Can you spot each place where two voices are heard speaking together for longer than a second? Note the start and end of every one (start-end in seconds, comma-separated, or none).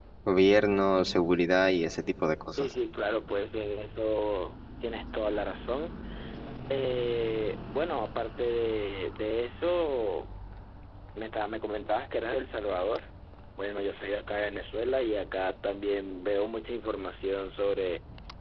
none